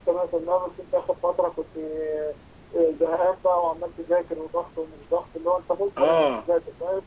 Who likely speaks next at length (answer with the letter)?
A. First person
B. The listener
A